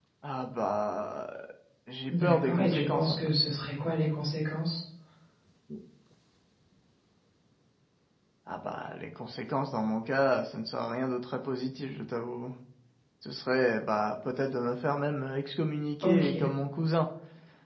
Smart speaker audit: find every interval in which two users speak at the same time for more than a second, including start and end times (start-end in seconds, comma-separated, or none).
2.1-3.4